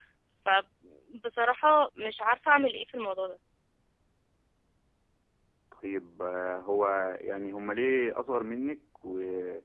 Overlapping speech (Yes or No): No